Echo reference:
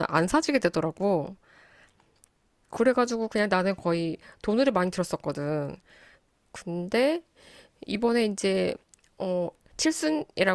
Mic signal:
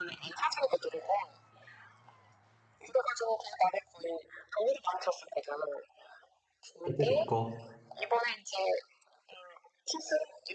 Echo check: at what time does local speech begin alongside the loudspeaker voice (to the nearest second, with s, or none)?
7 s